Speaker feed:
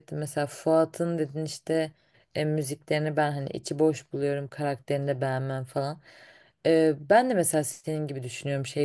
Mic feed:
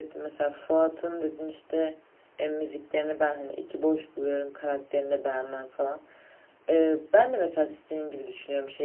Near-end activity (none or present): none